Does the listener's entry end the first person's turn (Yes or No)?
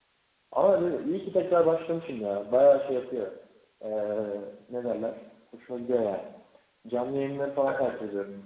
No